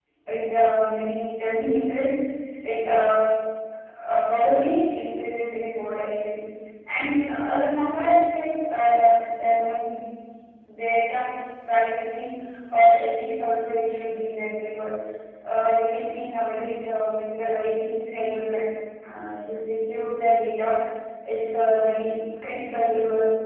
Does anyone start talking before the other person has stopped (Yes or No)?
No